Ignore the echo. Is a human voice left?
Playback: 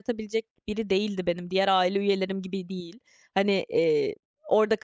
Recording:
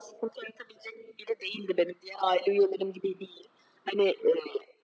No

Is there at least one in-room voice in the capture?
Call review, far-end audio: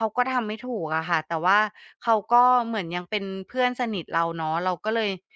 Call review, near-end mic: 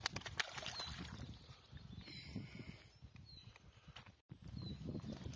No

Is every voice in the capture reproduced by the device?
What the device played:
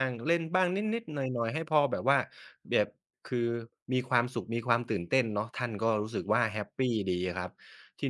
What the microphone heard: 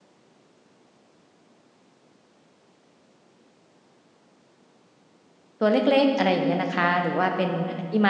No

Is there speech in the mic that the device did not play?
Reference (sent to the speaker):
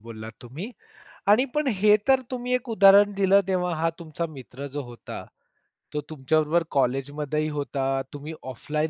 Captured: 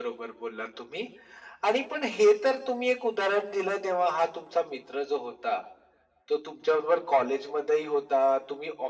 No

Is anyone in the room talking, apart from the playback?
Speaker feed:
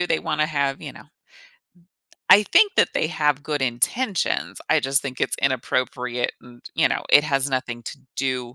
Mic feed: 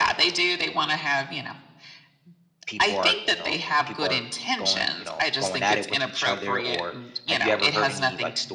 Yes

